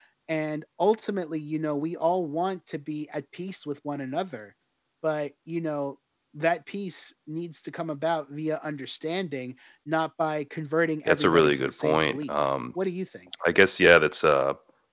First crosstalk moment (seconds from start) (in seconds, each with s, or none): 11.1 s